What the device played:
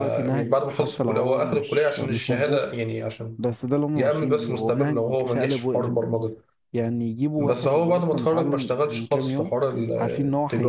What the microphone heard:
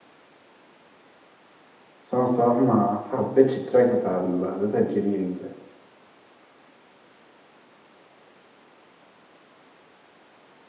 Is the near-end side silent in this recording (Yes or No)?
No